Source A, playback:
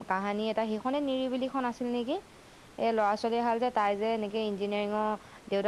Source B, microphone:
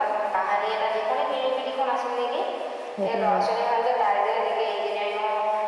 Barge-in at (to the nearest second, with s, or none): 3 s